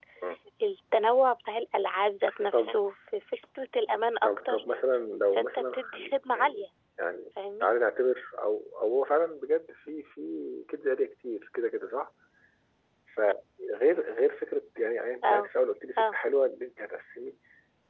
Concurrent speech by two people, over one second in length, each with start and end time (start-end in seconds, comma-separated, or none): 5.4-6.7